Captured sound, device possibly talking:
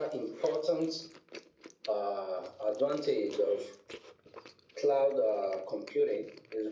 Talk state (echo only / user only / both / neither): echo only